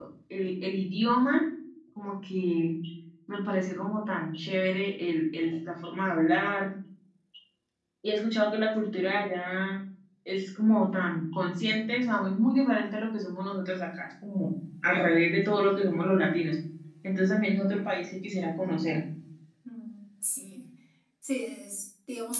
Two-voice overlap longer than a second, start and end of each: none

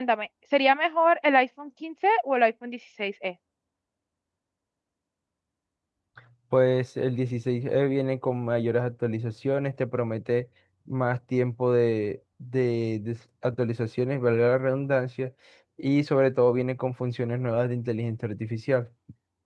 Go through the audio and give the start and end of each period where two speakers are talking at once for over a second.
none

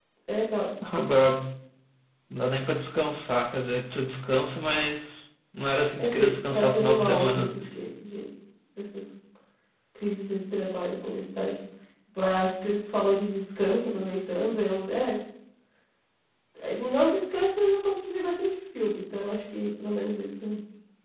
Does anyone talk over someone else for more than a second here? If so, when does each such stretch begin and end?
6.0-7.6

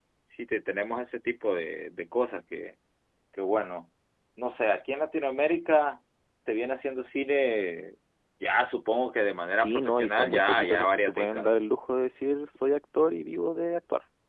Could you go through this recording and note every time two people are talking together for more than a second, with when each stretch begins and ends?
9.6-11.6

